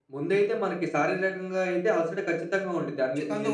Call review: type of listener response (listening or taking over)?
listening